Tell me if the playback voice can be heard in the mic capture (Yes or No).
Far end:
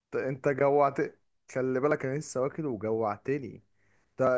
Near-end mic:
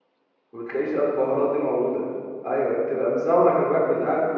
No